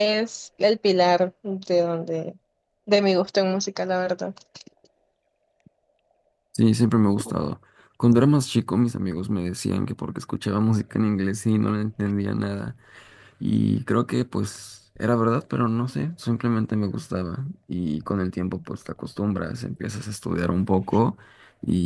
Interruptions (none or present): none